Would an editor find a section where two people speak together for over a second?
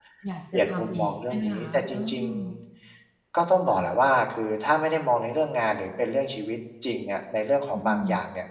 Yes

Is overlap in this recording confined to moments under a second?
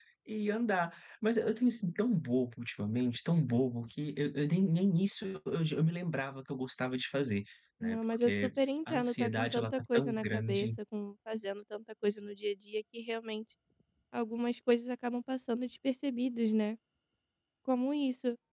No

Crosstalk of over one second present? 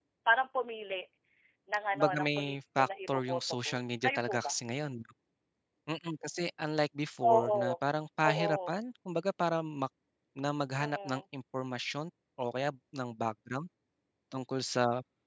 Yes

